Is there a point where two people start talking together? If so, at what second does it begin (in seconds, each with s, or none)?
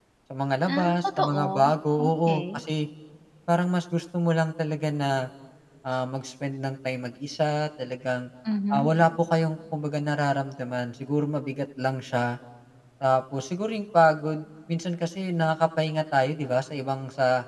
0.7 s